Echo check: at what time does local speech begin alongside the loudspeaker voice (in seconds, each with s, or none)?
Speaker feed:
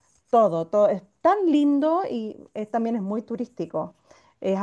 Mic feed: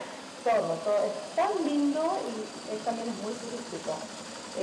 none